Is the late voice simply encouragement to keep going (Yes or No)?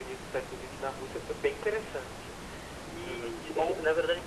No